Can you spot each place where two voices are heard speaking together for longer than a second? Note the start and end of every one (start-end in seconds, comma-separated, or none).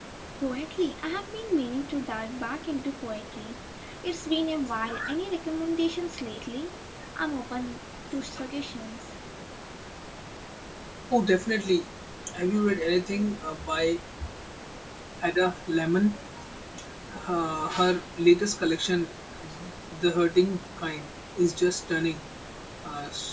none